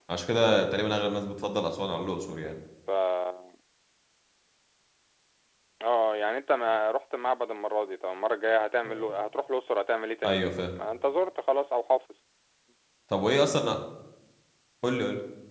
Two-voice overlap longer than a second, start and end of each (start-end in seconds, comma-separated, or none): none